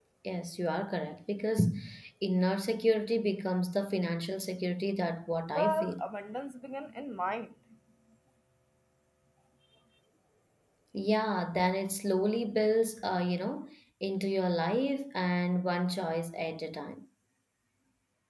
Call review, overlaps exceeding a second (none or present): none